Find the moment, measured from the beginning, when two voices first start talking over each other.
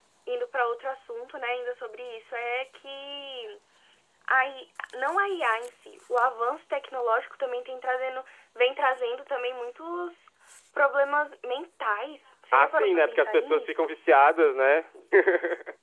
13 s

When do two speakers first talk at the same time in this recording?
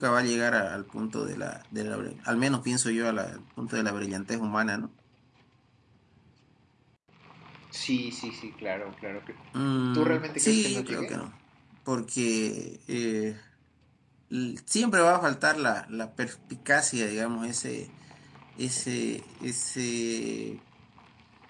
10 s

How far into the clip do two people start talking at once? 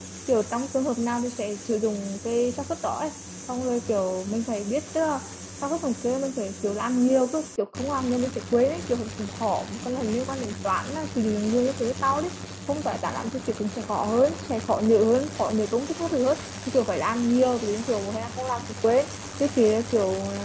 none

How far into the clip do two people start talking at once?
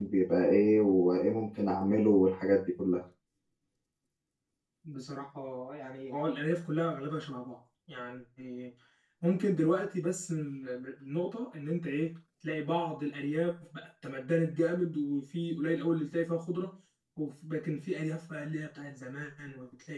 none

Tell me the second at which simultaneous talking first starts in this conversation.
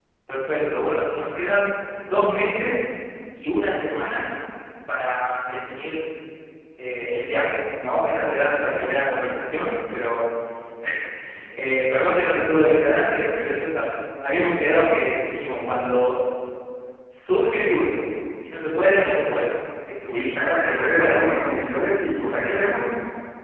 20 s

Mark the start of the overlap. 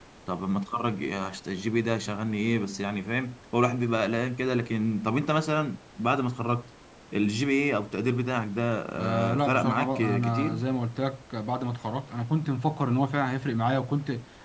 9 s

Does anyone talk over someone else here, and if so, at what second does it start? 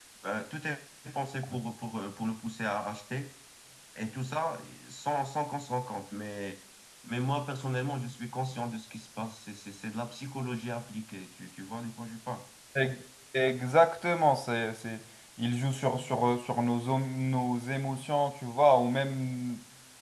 none

